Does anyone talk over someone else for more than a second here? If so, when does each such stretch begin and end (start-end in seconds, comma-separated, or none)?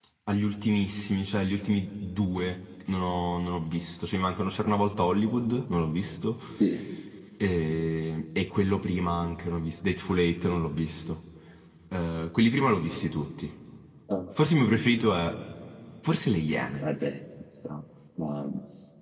none